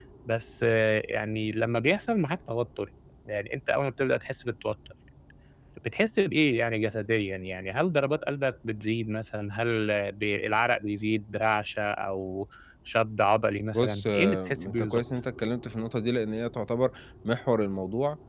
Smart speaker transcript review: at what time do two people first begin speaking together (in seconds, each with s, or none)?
13.7 s